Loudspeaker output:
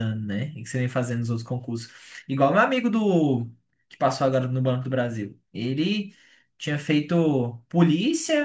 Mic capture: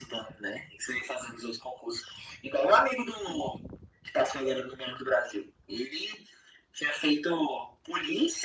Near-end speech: none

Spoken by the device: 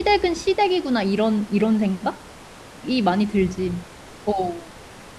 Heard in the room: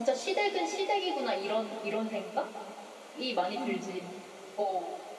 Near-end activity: present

